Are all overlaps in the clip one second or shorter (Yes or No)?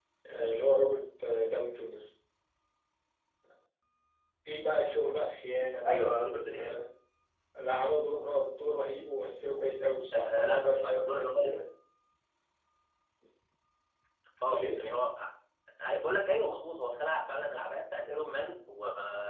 No